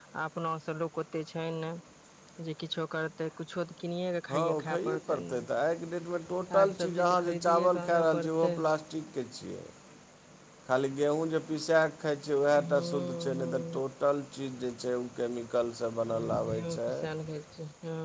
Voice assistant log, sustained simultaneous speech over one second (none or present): present